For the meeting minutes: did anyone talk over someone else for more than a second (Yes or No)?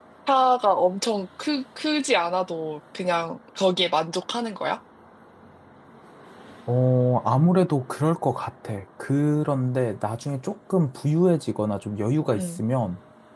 No